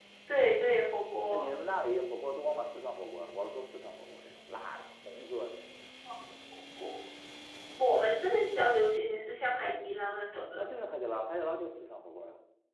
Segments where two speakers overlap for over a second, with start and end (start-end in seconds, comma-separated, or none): none